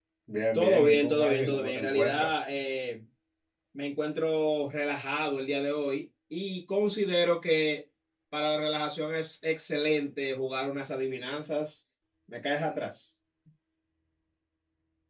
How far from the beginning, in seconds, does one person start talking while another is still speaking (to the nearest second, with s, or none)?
1 s